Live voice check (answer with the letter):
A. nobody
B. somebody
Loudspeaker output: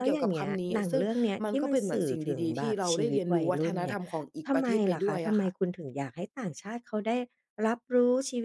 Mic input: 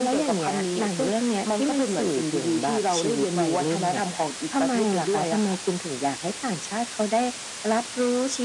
A